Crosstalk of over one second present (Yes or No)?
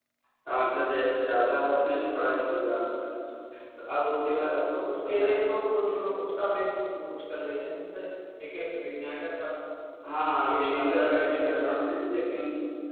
Yes